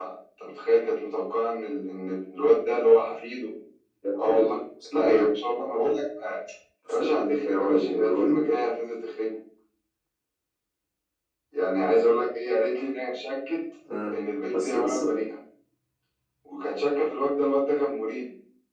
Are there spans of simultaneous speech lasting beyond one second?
Yes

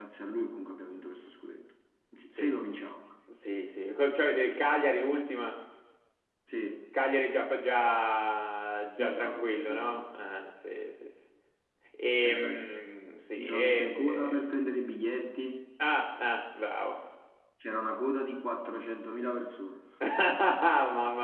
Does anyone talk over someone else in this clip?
Yes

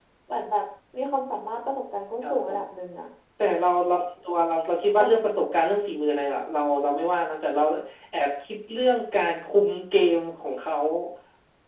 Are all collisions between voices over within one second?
Yes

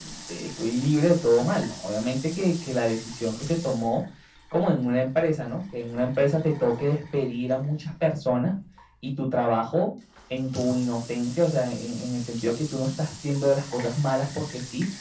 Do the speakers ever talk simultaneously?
No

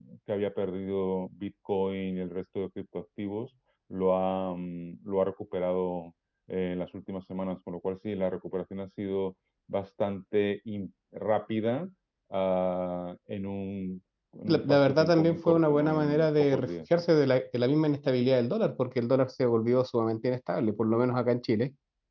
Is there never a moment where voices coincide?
No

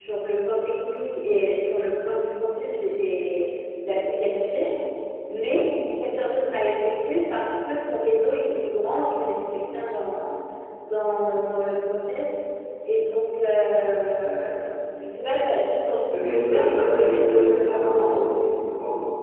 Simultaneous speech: Yes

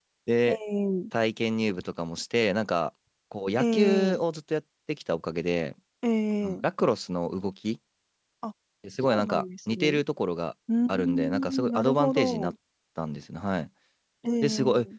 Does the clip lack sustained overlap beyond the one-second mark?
No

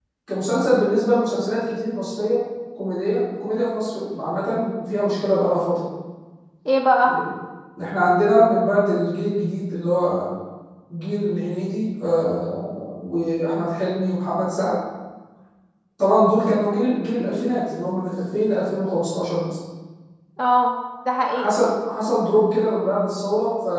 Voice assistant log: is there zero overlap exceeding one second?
Yes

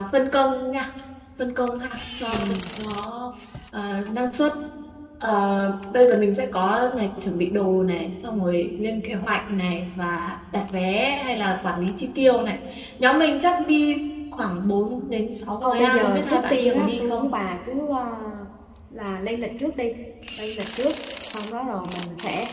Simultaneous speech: Yes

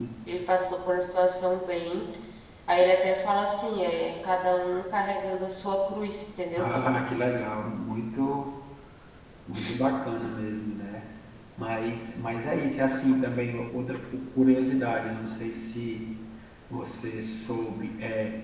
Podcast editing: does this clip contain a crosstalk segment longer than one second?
No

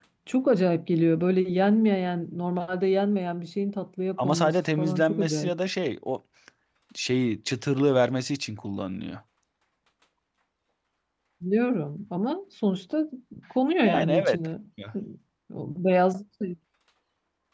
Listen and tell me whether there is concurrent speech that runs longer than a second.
Yes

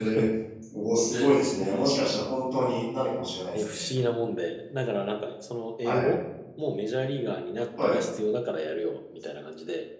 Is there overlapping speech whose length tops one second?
No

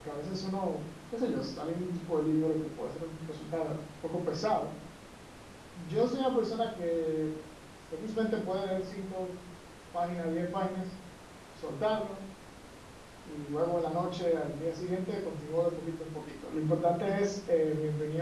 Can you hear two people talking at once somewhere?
No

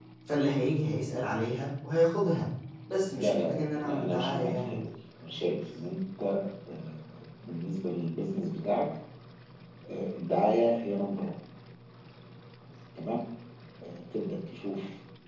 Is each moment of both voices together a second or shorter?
No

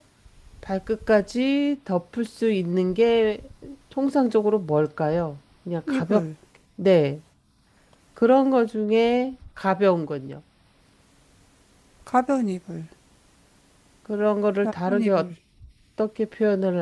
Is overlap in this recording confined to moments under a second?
Yes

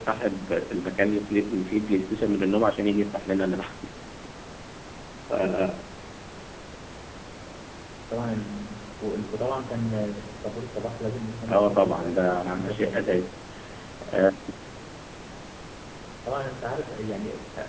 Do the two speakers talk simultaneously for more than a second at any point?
Yes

